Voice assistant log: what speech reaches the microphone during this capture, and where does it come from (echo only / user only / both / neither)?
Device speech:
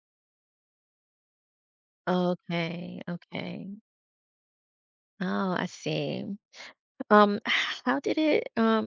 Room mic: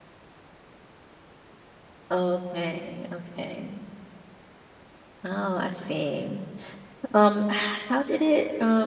echo only